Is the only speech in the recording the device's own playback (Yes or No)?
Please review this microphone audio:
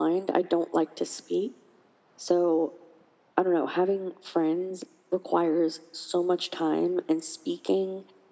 Yes